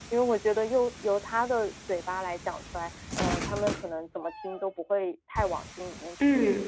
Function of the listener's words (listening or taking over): taking over